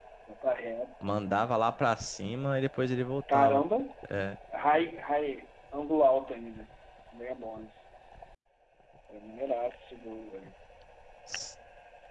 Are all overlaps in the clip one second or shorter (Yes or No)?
Yes